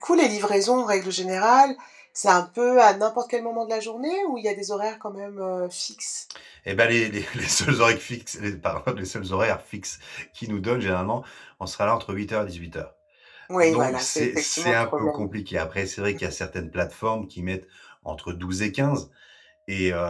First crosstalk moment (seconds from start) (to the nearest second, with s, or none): 14 s